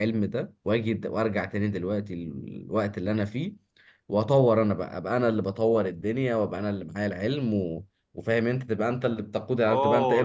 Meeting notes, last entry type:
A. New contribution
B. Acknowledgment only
A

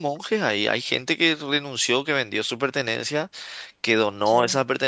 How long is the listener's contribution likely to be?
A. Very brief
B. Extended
A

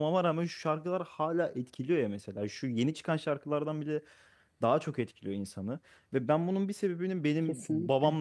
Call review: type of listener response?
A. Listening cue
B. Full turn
A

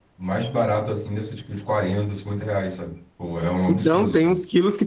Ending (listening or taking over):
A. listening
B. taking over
B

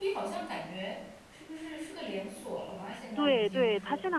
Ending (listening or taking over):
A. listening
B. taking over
B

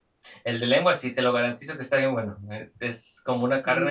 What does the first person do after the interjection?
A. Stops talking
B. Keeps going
B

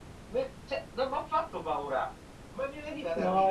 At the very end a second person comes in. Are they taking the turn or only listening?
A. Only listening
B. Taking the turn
B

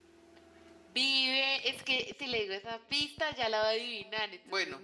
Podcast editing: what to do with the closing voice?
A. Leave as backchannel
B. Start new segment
B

